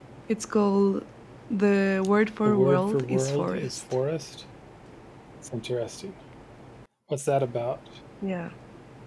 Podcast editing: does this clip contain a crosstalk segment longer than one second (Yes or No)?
Yes